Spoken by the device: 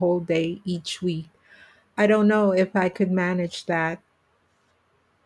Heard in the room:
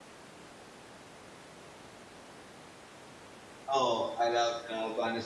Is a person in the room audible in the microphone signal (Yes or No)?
Yes